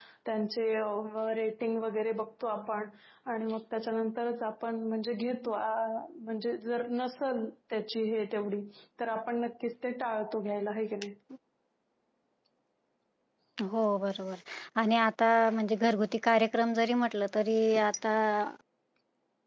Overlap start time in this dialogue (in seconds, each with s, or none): none